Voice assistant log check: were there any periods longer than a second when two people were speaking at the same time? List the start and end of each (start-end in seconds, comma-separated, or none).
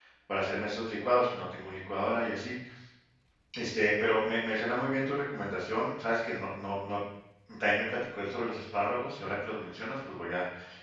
none